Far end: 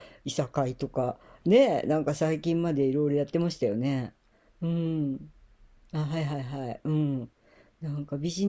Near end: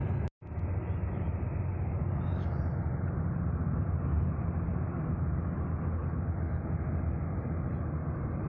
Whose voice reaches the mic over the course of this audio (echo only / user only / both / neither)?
neither